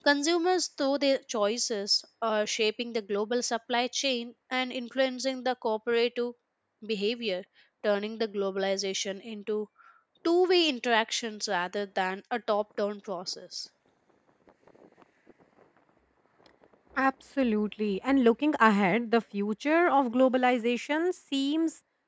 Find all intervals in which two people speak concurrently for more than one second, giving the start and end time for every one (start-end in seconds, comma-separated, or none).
none